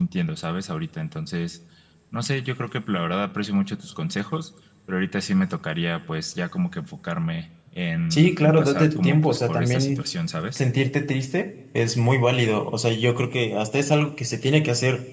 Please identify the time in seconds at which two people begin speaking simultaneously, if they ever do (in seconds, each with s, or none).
8.1 s